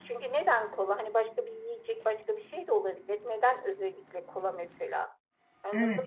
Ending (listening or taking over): taking over